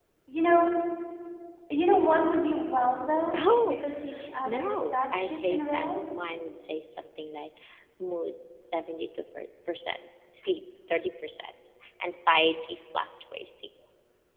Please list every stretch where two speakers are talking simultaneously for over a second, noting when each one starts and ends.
4.4-5.9

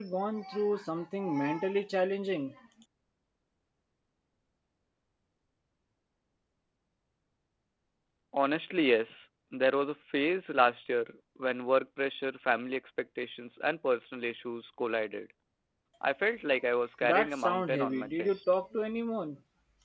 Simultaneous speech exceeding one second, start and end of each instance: 17.0-18.4

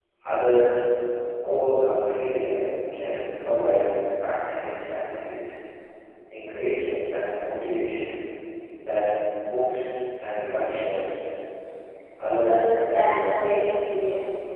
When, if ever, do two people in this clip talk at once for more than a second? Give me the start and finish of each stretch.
12.4-13.6

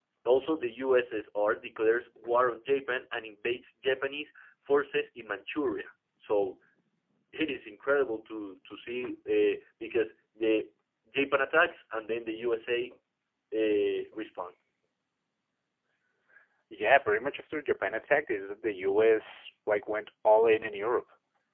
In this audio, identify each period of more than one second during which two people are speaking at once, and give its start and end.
none

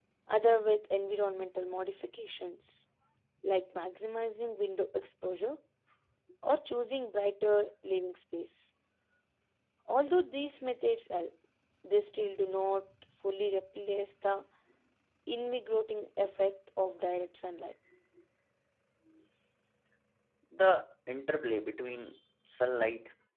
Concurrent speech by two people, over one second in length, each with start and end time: none

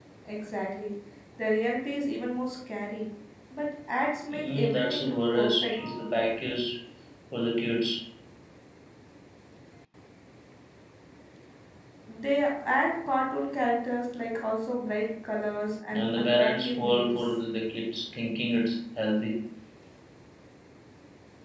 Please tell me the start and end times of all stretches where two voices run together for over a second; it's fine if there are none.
4.3-5.7, 15.9-17.3

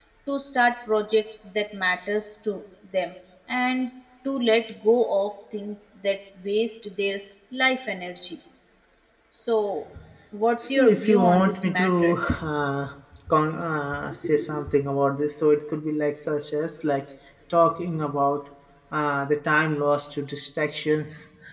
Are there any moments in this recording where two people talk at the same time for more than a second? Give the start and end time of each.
10.6-12.1

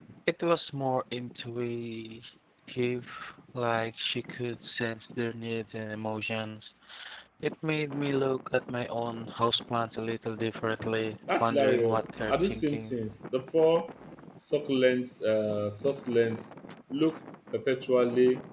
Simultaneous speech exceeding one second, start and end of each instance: 11.4-12.9

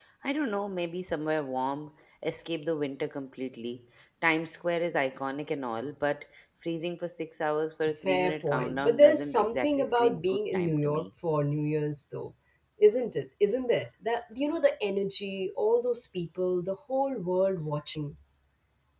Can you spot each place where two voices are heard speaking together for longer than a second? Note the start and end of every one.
8.0-11.0

